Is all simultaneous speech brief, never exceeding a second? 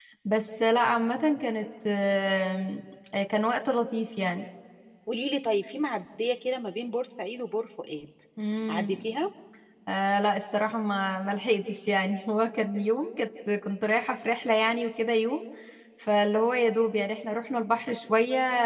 Yes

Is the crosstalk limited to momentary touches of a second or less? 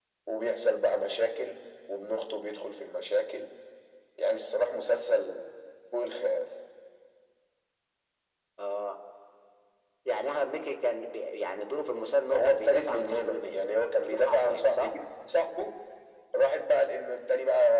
No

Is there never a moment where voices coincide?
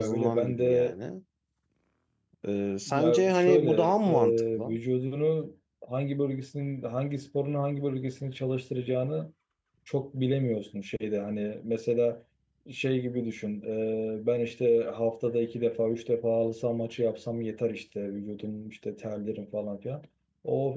No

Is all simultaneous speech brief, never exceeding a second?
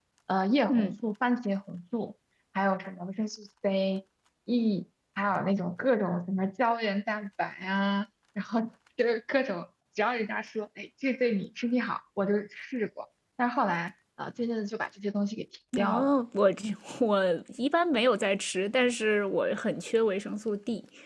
Yes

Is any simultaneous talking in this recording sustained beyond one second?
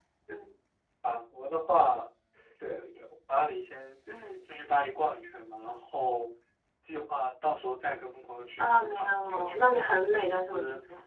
Yes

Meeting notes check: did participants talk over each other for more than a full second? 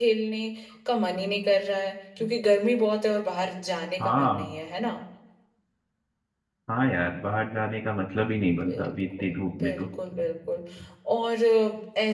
Yes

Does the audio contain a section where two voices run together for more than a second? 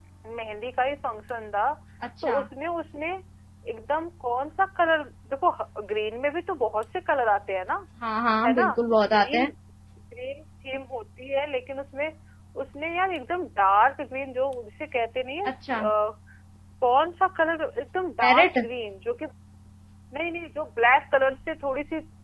No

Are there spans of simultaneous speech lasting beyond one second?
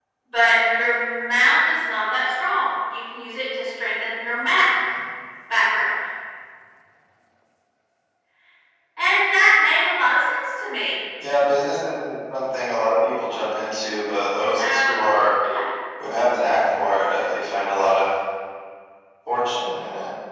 No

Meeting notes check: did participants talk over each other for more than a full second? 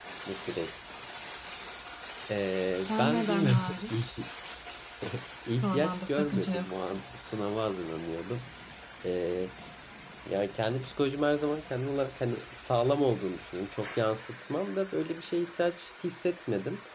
Yes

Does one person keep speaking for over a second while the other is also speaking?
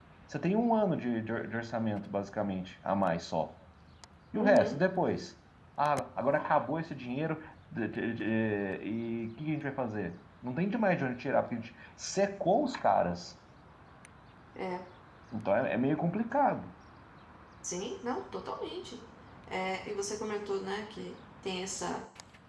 No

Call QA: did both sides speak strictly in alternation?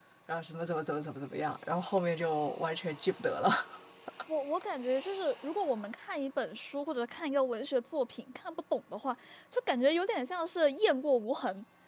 Yes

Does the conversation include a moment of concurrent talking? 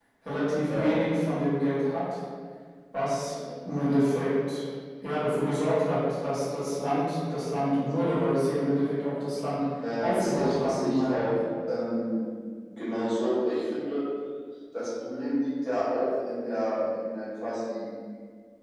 Yes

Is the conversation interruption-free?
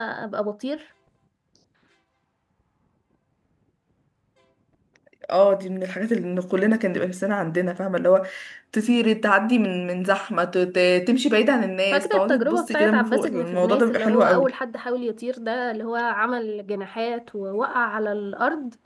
No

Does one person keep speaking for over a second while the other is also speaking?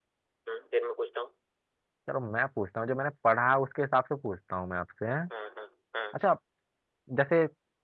No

